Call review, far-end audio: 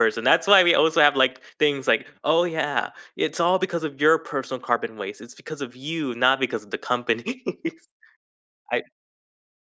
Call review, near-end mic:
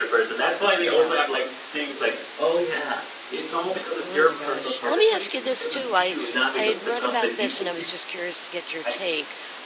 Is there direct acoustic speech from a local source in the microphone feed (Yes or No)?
Yes